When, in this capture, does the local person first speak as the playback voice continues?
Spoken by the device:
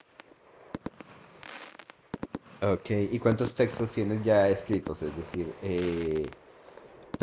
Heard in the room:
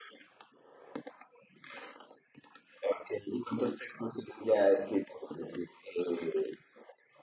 none

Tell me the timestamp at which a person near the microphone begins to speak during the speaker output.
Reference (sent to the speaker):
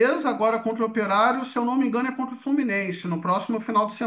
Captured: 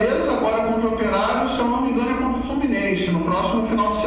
none

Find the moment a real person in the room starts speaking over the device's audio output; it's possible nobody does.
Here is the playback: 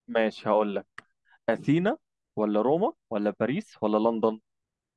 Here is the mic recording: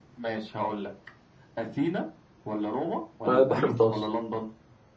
3.3 s

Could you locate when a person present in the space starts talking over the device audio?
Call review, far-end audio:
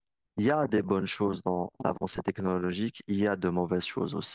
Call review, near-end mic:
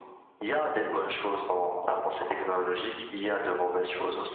none

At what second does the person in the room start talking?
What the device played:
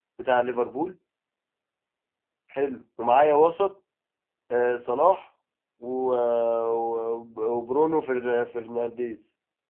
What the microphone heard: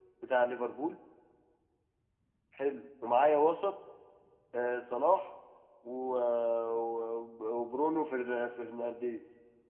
none

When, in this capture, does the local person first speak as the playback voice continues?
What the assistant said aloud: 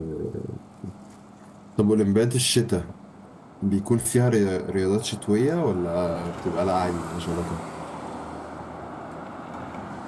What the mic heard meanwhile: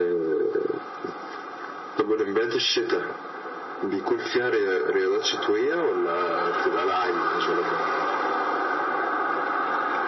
none

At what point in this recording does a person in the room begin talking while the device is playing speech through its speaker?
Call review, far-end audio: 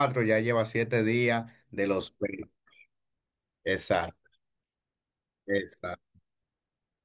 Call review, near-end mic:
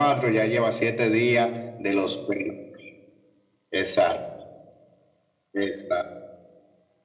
none

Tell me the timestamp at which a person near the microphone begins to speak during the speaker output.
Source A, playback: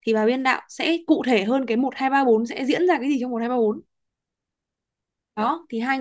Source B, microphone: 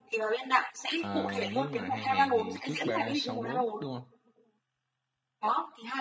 1.0 s

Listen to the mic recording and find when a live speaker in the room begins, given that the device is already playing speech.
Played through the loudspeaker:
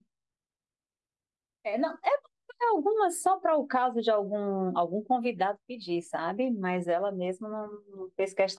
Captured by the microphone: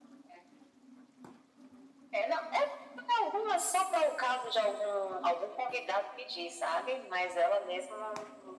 none

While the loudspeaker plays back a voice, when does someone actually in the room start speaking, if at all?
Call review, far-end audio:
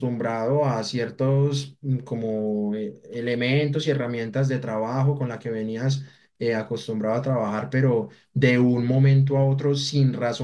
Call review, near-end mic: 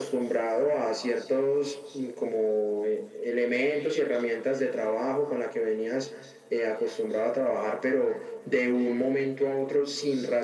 none

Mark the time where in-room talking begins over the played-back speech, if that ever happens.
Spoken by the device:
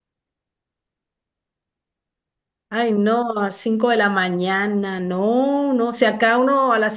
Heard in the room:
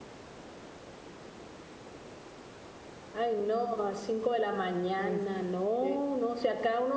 5.0 s

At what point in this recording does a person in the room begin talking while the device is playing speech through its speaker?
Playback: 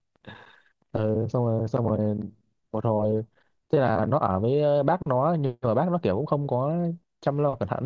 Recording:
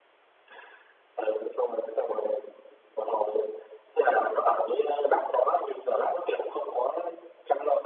none

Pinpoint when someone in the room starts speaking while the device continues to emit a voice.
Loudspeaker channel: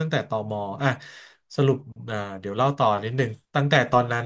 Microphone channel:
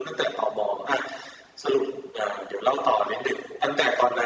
none

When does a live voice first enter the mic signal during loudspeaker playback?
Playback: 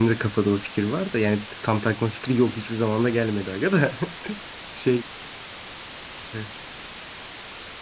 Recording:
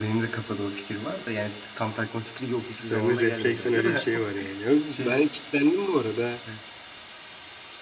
2.8 s

